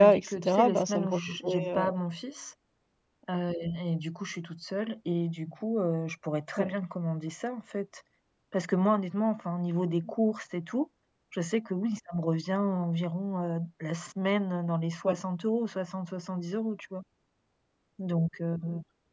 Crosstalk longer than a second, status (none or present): present